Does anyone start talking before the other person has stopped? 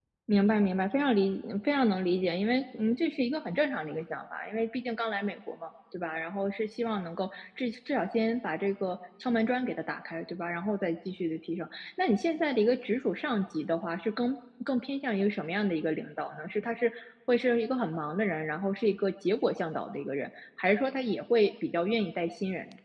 No

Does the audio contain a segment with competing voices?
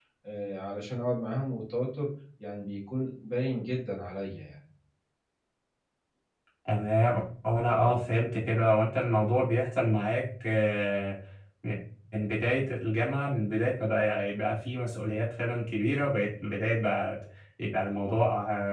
No

